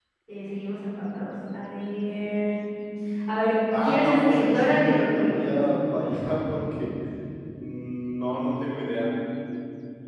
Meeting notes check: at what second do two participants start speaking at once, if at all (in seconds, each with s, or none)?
3.8 s